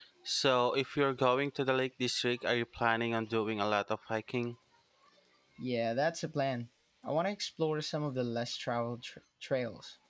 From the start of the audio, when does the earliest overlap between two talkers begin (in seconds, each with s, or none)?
none